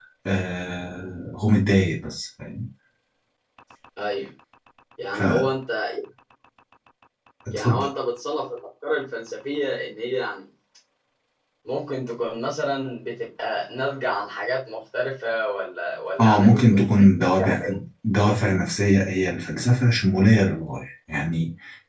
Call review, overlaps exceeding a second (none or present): present